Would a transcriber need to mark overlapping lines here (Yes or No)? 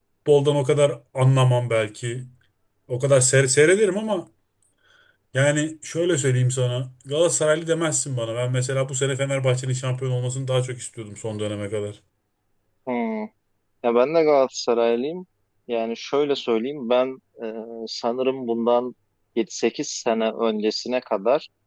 No